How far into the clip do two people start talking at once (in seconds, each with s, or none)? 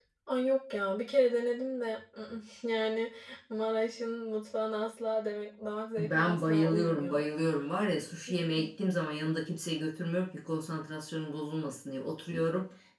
6.0 s